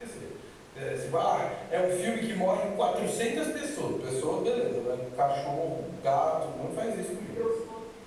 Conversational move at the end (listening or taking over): taking over